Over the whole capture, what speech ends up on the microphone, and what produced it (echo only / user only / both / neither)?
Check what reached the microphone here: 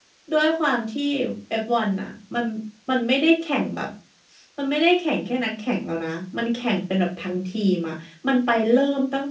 user only